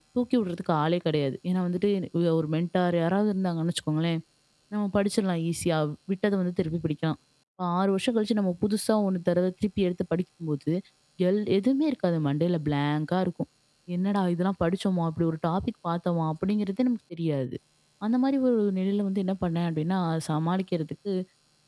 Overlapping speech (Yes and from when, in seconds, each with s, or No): No